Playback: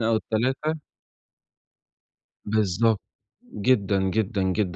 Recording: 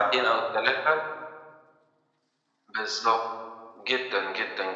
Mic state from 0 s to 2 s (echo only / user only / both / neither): echo only